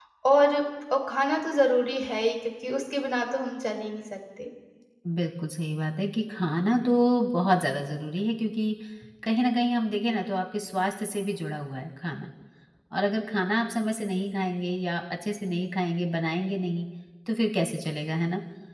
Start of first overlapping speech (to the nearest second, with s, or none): none